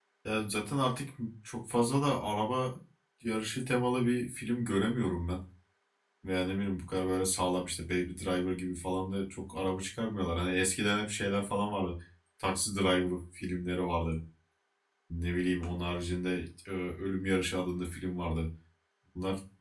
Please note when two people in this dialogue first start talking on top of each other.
none

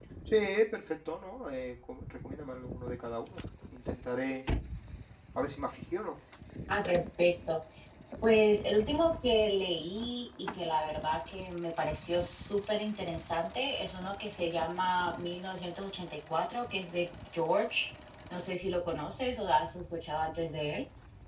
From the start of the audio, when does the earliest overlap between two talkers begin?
none

